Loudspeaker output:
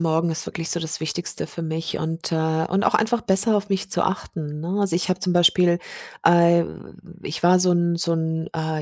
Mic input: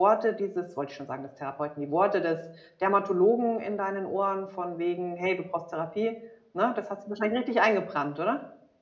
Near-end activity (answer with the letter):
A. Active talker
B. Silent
A